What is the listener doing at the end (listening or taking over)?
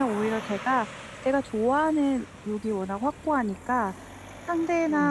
listening